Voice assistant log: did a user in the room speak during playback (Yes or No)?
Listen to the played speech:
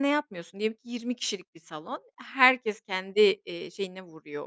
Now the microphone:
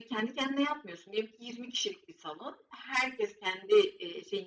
No